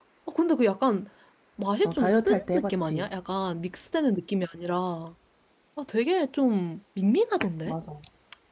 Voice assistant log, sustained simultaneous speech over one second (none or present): present